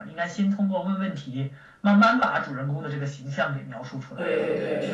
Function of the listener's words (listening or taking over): taking over